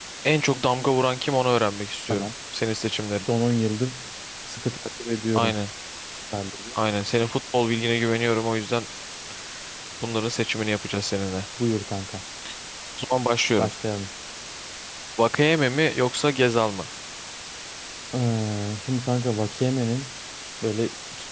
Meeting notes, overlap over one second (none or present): none